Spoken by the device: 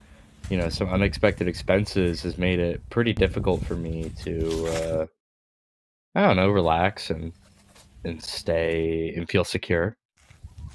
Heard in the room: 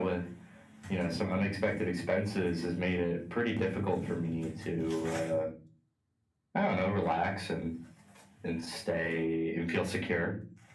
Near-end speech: none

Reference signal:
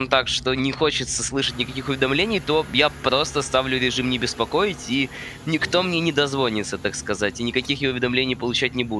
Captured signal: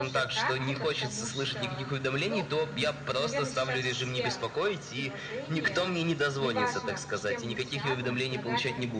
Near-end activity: present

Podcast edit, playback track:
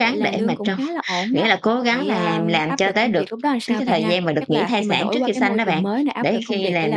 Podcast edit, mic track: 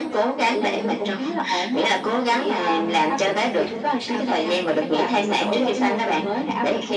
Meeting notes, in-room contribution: none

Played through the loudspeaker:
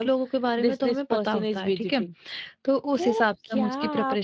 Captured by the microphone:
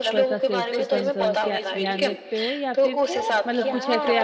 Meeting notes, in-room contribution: present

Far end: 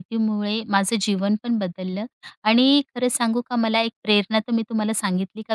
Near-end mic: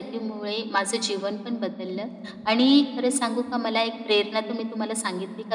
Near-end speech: none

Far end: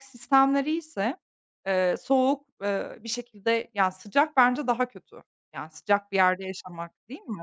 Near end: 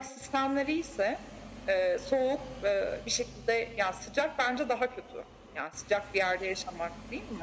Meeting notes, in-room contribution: none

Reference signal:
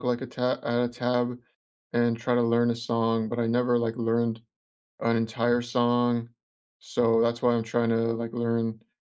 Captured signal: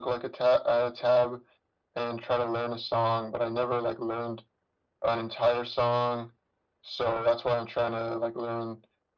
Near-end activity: none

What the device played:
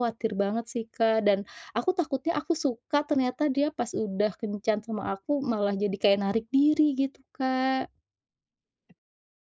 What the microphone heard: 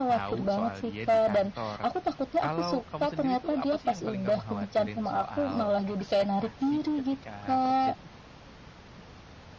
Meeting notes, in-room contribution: present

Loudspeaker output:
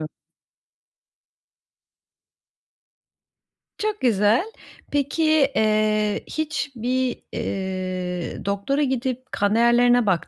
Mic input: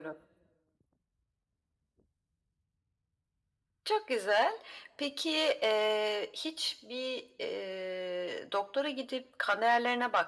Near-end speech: none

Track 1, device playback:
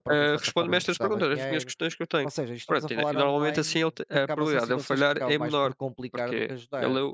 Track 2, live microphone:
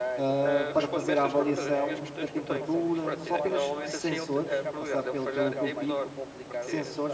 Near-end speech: present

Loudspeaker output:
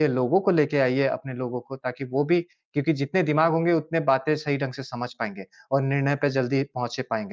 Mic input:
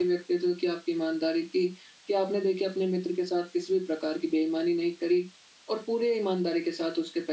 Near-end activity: present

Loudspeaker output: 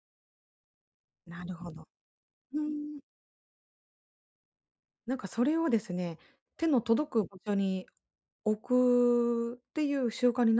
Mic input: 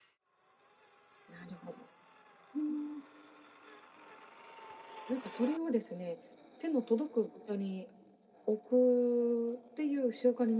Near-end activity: none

